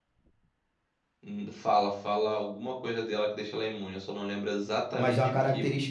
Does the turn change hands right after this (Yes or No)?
Yes